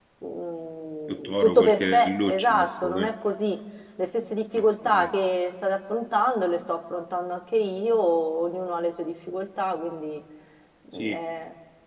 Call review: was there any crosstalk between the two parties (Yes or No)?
Yes